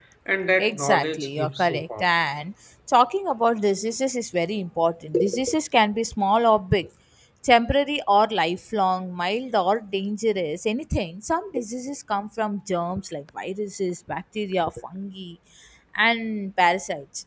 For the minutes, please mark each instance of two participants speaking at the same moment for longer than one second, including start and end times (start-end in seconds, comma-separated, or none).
0.6-2.0